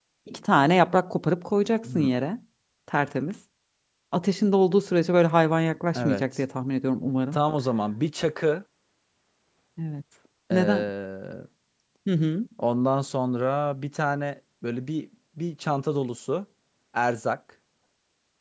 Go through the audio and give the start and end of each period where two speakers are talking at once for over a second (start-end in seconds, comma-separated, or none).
none